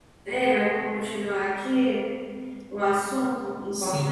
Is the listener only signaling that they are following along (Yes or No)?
No